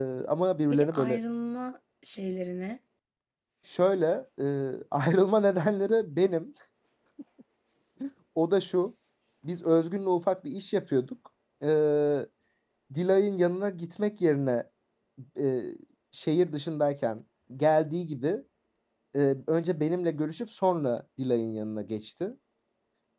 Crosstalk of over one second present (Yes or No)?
No